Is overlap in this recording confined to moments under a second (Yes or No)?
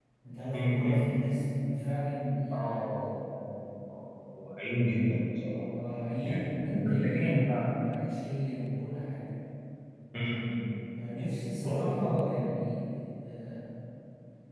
No